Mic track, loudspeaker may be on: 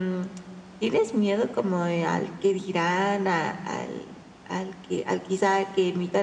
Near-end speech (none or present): none